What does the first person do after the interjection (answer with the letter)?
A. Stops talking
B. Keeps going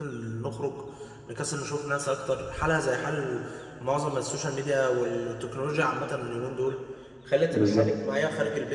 B